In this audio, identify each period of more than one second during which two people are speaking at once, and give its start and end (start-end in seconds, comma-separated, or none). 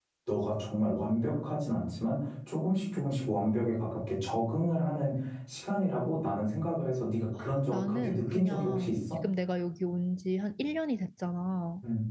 7.7-9.0